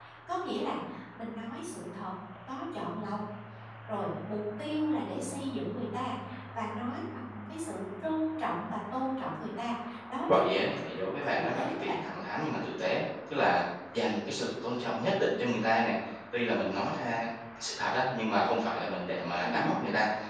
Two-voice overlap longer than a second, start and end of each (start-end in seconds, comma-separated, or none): 10.3-12.0